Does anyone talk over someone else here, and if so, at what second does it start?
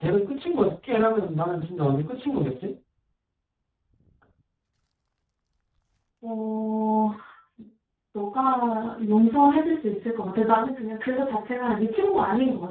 none

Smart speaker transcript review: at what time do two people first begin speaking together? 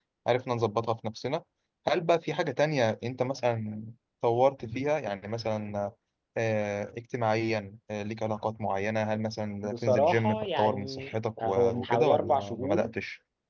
9.6 s

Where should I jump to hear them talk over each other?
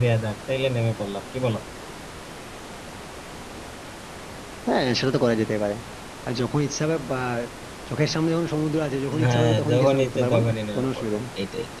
9.1 s

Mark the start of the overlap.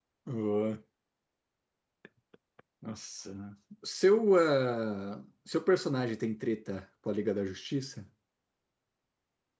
none

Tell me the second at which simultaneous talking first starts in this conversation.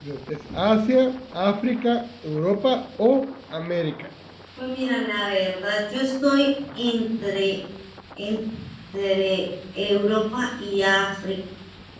none

